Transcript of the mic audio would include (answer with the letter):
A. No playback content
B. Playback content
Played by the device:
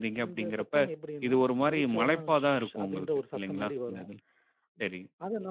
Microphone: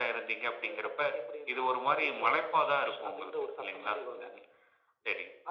B